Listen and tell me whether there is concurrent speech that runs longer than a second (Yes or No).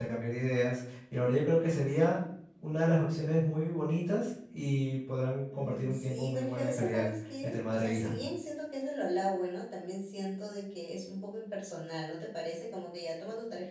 Yes